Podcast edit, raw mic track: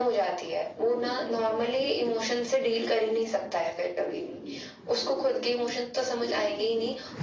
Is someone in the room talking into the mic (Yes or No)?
No